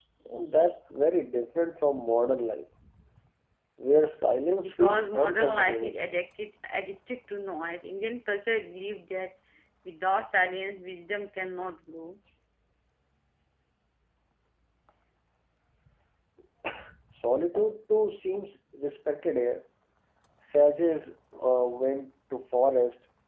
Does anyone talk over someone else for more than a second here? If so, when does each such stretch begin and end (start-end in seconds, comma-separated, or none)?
4.6-6.0